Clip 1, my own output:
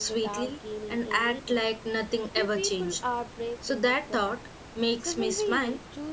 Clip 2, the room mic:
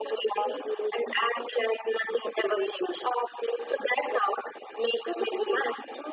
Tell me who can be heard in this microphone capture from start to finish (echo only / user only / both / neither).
echo only